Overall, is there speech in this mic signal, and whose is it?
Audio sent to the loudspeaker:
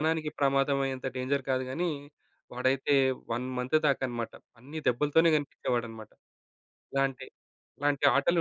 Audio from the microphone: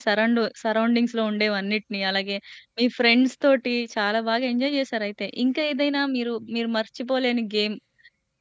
user only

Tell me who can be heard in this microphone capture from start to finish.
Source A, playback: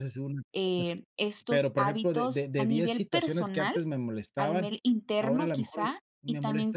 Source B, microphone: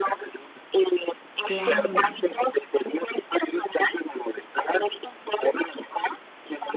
both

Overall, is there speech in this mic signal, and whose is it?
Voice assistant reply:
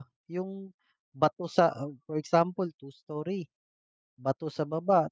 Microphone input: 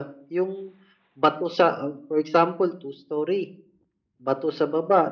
echo only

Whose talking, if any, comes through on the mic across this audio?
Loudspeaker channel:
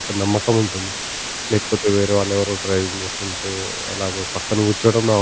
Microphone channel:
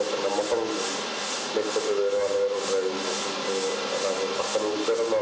echo only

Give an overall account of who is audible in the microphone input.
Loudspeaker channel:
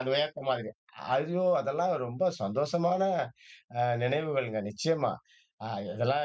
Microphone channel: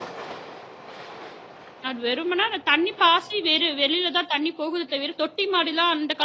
user only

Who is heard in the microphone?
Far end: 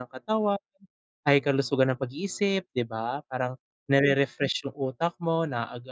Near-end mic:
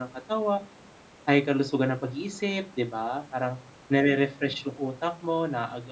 echo only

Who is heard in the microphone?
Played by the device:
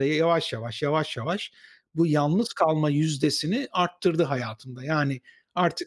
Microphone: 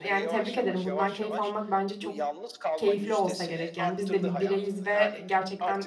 both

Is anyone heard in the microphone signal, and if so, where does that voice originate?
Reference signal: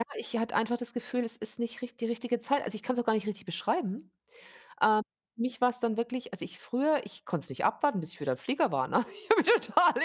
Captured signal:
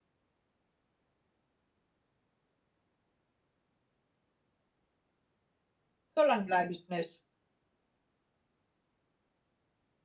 user only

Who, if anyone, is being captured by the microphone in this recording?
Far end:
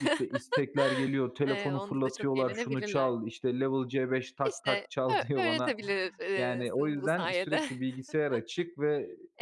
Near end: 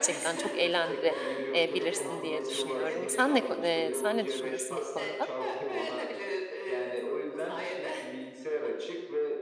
both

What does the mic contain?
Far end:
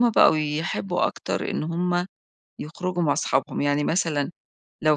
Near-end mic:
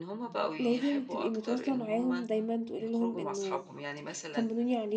both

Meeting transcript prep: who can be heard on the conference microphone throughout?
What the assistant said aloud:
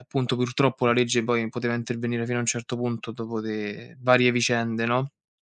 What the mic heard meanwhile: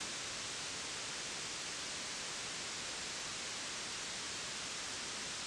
neither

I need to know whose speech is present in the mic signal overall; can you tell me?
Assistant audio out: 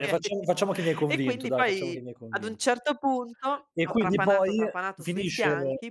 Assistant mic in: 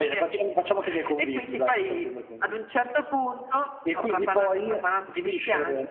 echo only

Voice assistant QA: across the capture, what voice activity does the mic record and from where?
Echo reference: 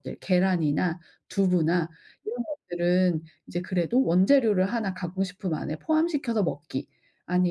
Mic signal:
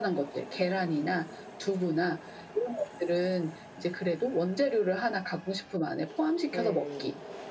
both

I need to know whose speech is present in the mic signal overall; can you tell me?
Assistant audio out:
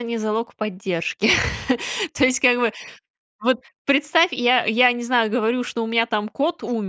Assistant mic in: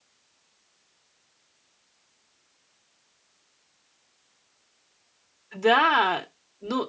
user only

